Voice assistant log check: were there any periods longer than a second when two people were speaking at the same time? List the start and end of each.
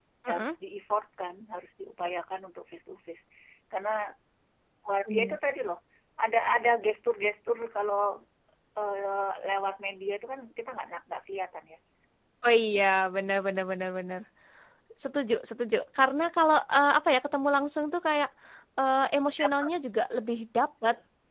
none

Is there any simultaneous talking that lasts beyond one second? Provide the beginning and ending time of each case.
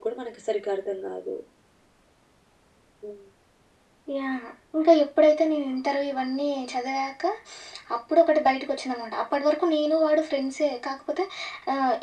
none

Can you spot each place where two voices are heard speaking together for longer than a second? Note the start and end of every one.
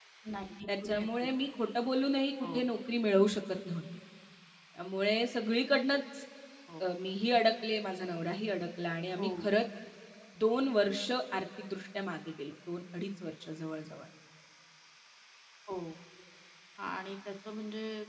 none

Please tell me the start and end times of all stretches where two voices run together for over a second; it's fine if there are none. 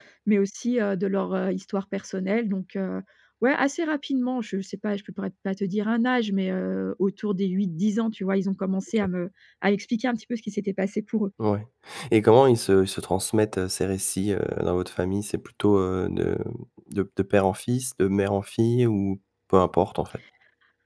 none

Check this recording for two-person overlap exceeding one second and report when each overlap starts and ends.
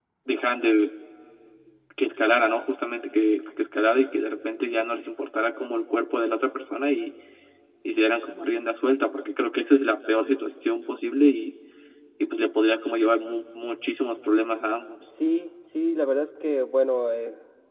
none

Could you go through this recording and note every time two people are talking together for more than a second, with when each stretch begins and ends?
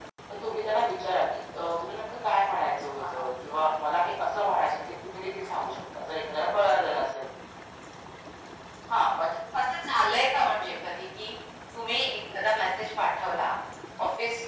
none

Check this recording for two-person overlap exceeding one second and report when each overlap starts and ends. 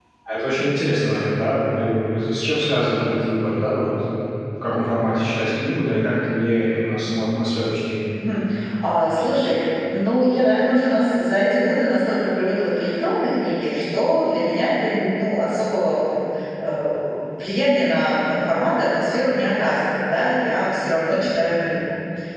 none

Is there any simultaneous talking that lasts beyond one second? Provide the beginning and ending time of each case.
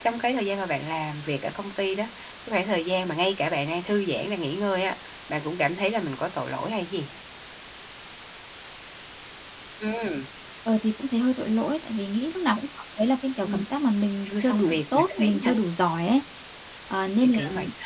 14.3-15.5

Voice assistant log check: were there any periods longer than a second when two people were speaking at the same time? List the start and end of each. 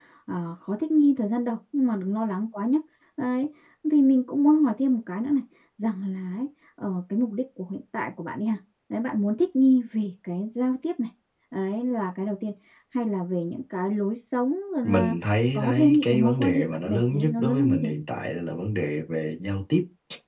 15.5-17.9

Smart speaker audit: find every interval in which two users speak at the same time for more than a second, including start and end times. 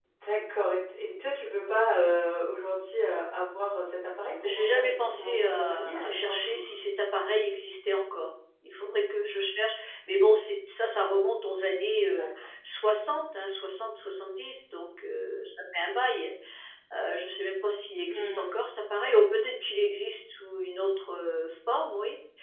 4.4-6.6

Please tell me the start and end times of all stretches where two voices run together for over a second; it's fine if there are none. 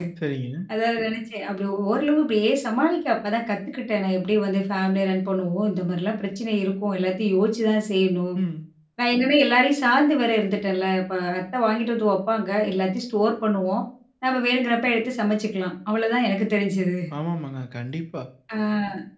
none

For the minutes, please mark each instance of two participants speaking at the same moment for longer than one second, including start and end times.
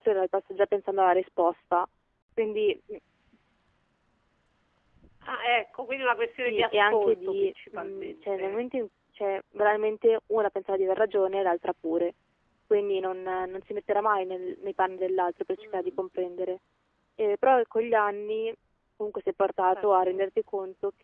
6.4-8.6

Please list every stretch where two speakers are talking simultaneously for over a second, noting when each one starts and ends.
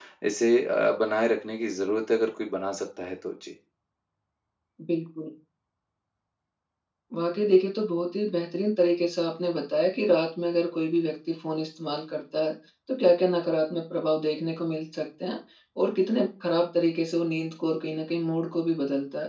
none

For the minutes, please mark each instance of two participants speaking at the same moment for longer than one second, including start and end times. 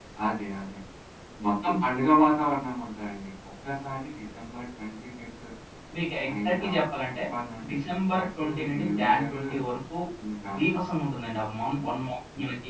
7.7-9.4

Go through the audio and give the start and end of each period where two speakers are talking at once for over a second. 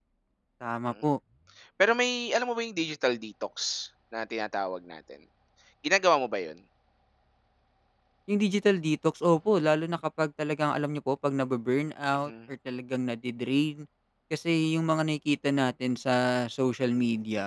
none

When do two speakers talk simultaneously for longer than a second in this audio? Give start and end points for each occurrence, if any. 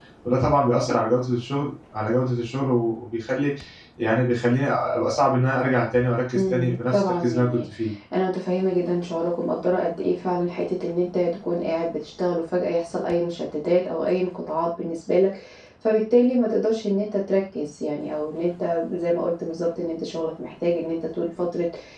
6.4-7.6

